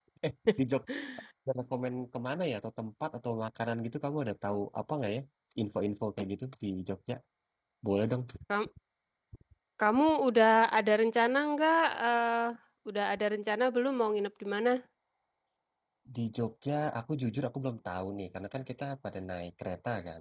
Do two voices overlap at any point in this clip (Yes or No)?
No